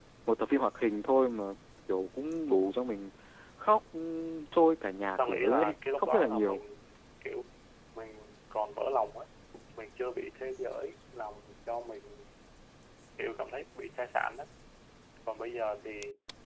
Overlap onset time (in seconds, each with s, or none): 5.2 s